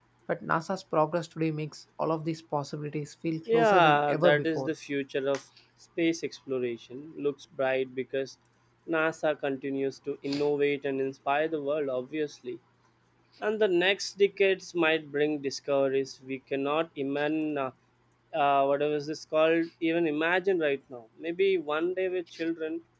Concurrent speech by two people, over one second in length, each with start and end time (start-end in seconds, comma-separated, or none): 3.5-4.7